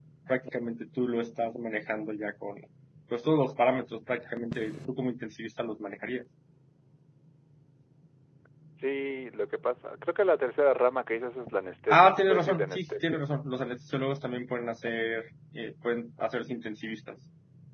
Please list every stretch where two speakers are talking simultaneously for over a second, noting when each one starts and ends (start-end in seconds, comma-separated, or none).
11.9-13.2